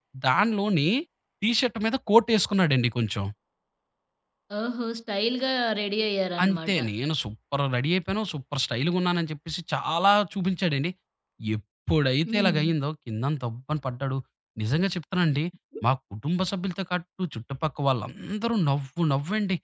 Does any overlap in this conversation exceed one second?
No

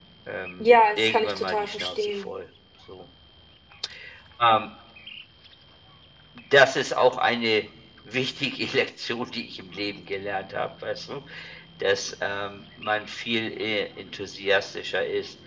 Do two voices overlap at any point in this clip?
Yes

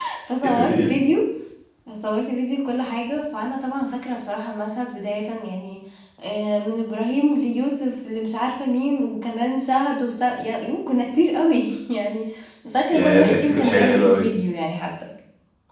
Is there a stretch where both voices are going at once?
Yes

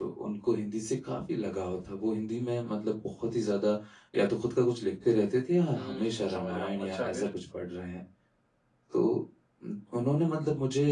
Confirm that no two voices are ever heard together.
No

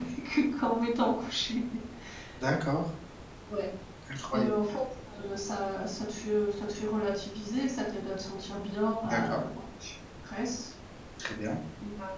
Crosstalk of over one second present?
No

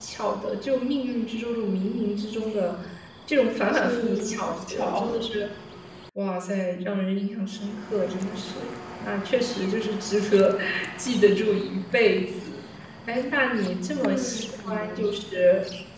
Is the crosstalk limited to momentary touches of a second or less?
No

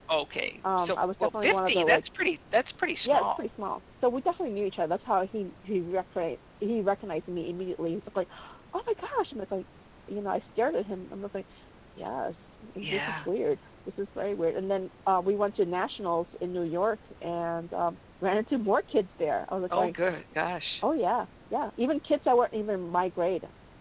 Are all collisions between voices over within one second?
No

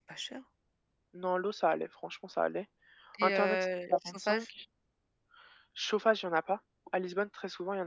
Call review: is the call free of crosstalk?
No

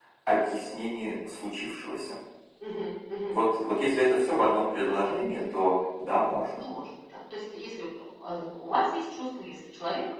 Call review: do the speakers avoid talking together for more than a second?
Yes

